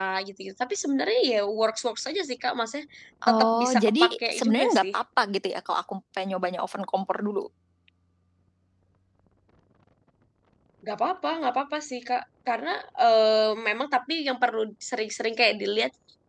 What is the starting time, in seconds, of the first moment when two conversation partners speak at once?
3 s

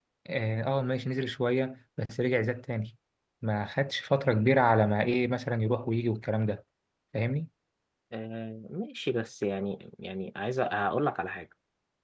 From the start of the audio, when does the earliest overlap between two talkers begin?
none

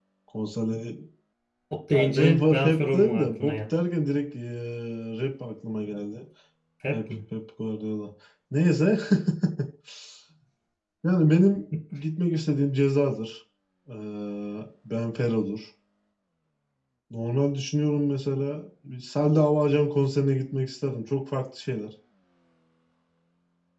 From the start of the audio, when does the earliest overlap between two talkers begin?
2 s

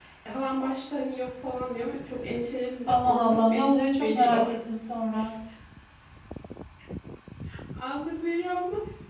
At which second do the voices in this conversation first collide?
3 s

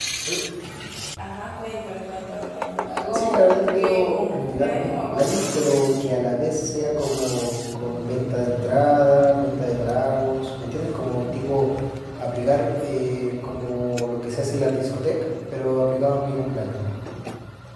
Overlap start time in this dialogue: 3 s

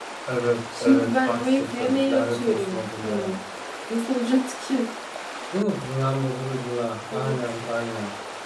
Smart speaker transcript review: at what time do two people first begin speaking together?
1 s

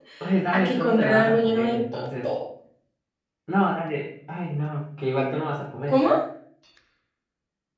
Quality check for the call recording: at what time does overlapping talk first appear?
1 s

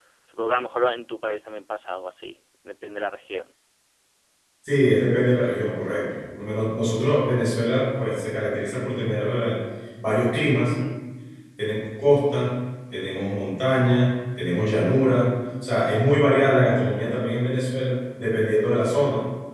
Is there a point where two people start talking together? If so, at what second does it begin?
none

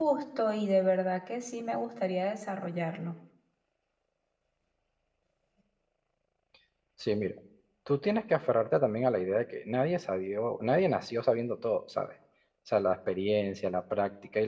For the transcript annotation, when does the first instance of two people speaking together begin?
none

